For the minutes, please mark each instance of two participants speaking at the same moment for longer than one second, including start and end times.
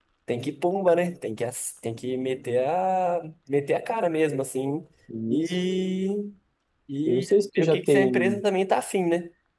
7.1-8.3

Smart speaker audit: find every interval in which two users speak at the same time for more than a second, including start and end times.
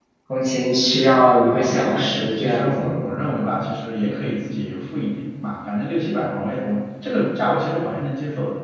1.5-2.9

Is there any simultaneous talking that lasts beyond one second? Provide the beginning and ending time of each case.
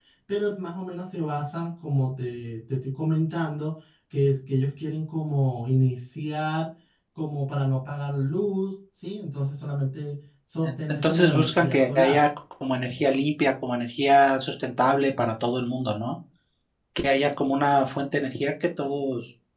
10.6-12.2

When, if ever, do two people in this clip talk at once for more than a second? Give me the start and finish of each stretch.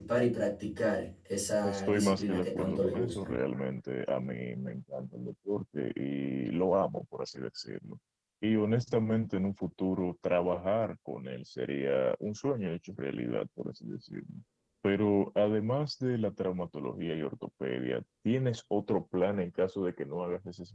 1.6-3.3

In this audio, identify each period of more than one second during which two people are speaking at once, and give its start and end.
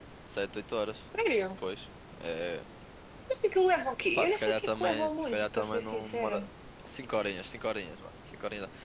4.2-6.4

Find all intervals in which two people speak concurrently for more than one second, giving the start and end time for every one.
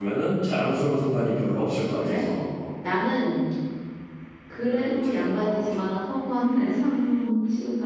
4.5-5.8

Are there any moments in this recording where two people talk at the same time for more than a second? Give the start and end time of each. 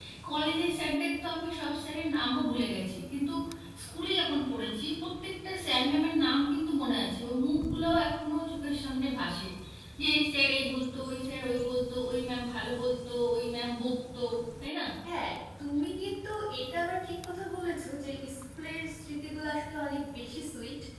none

